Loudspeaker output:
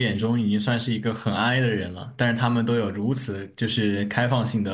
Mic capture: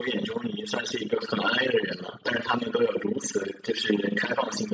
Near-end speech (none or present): none